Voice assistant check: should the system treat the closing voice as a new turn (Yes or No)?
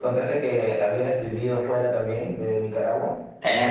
Yes